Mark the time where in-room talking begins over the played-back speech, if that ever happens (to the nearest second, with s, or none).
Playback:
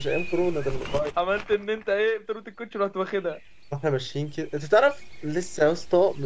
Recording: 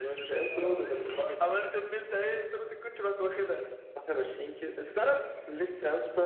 0 s